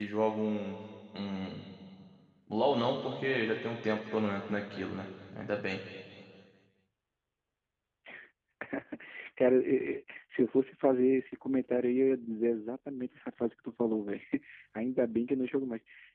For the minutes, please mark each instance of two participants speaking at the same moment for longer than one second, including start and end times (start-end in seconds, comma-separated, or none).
none